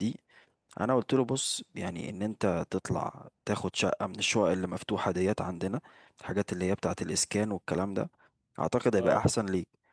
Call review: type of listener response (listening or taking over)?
listening